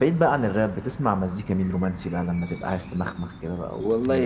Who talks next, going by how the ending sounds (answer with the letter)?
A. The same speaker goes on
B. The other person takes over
B